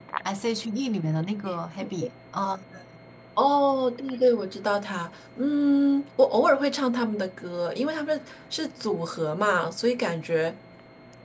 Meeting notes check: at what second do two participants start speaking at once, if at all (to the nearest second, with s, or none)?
none